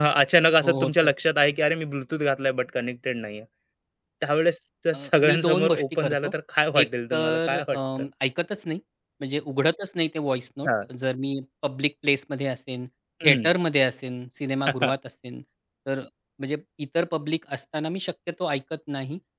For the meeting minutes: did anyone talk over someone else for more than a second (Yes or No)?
Yes